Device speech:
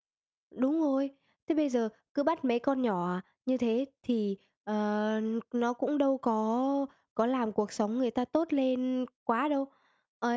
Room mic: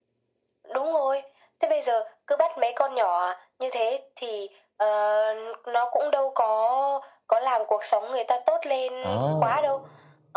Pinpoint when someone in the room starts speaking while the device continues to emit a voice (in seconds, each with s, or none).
9.0 s